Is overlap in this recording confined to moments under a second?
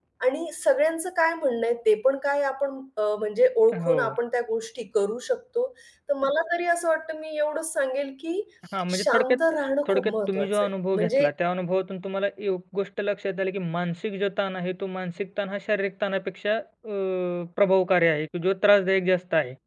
No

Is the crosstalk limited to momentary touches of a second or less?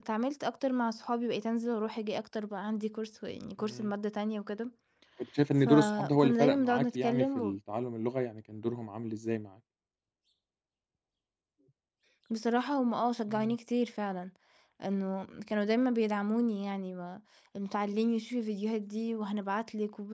No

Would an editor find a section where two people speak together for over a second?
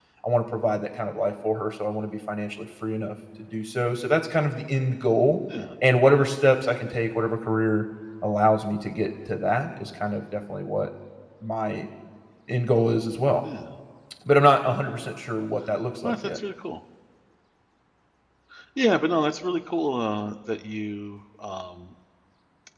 No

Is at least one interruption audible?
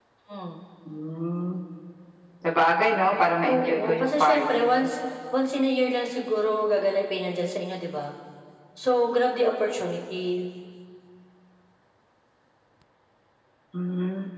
Yes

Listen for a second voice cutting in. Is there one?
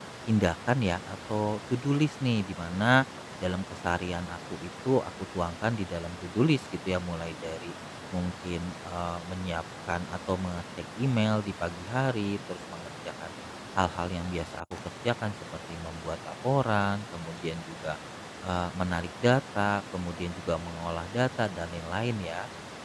No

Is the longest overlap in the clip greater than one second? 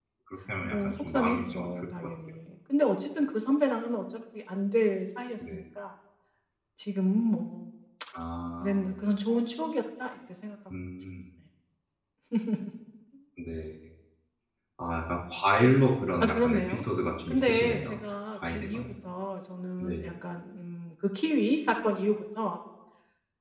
Yes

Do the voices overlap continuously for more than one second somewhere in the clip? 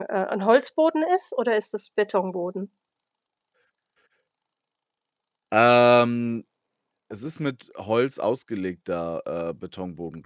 No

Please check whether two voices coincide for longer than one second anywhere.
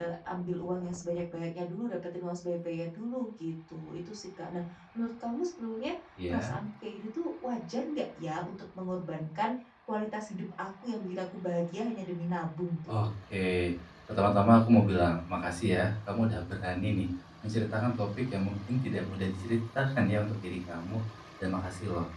No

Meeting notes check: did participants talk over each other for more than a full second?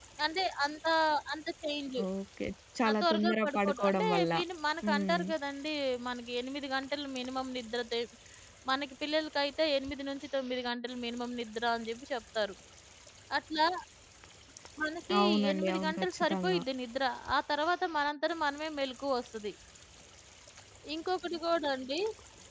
Yes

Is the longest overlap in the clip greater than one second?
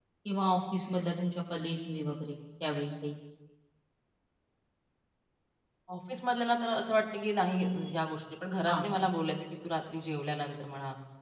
No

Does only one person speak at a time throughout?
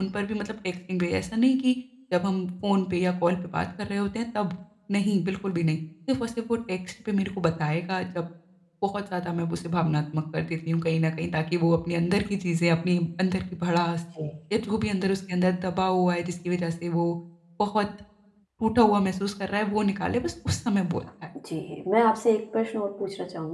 Yes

